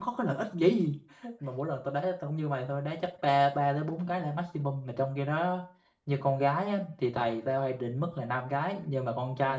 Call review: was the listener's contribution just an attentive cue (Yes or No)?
Yes